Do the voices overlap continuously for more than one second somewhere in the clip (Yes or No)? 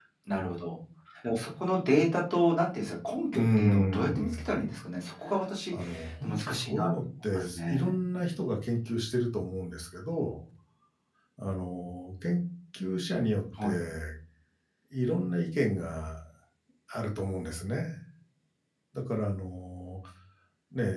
Yes